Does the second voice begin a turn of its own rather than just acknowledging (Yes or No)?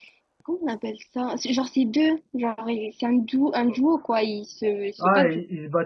Yes